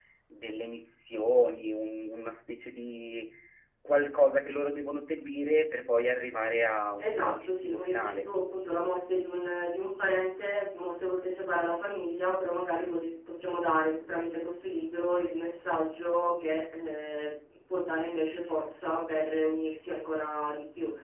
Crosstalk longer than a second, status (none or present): present